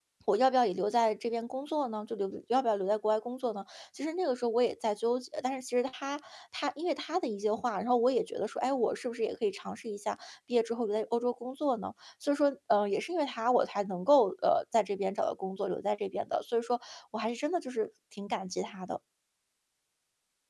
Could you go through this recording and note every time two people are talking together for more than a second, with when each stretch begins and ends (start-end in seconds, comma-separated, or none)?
none